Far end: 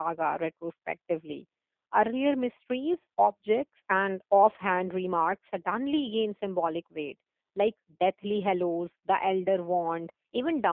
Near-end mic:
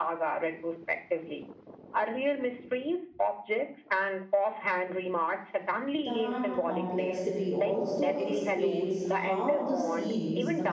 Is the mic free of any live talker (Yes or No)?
No